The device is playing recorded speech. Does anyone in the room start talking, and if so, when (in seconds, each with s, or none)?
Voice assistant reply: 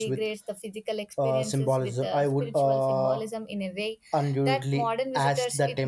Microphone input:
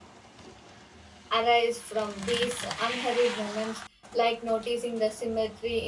1.3 s